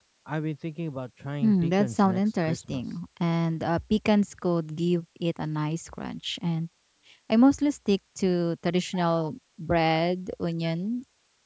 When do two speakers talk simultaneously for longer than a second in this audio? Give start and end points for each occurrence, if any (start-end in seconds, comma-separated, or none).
1.4-2.8